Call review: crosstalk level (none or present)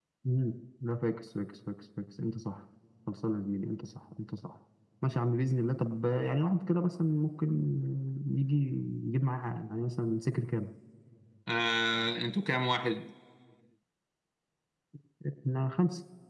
none